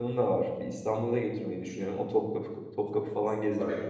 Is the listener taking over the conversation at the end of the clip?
Yes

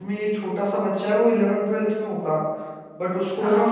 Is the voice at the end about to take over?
No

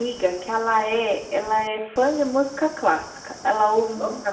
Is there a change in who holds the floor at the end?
No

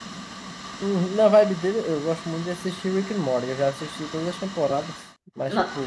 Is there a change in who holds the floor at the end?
No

